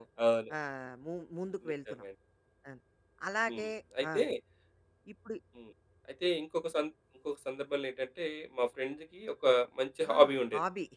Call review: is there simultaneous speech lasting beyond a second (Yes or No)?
No